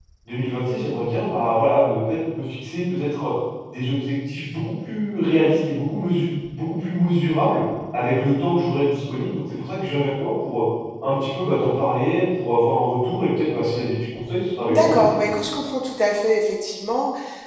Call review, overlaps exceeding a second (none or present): none